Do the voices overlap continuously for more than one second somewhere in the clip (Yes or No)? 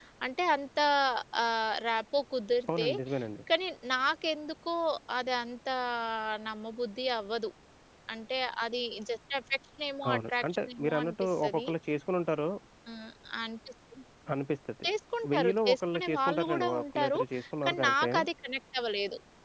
Yes